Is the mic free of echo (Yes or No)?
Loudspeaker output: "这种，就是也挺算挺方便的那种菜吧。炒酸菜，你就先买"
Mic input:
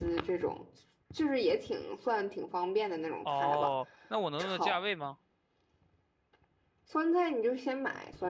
No